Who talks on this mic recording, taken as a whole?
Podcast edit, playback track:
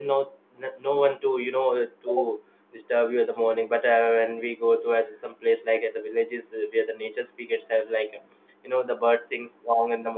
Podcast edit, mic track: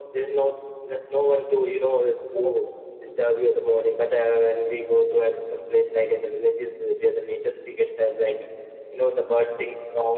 echo only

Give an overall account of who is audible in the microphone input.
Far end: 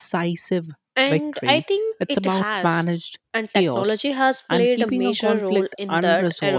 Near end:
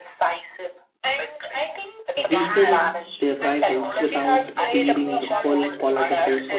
both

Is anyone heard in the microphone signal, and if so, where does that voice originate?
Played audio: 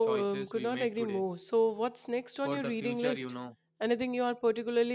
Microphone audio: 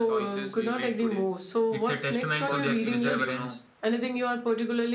both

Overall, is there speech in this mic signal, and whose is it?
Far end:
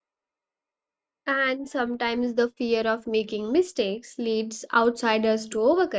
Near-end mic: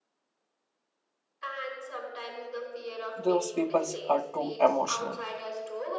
both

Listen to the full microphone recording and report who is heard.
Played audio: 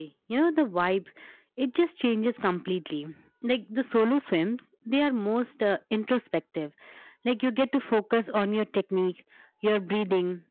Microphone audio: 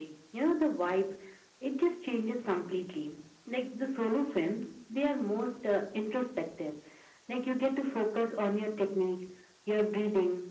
echo only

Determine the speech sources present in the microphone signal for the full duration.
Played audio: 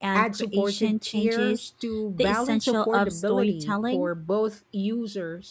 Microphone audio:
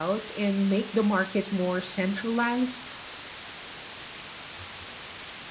user only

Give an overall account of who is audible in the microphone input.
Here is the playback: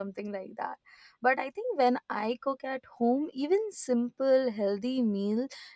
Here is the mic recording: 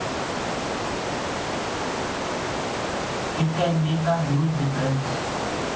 user only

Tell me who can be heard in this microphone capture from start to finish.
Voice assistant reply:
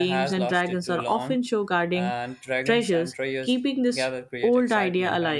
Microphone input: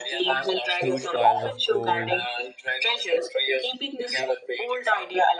both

